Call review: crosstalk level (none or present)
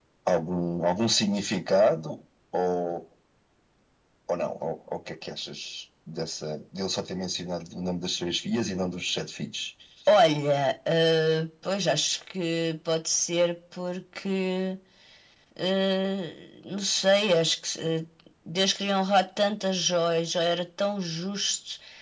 none